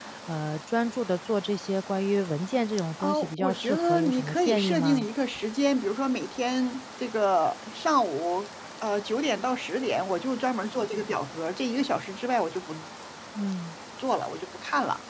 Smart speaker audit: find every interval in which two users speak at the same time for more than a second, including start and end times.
3.0-5.0

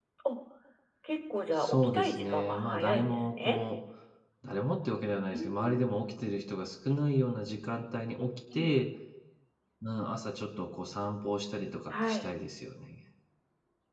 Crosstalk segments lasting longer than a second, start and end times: 1.6-3.6

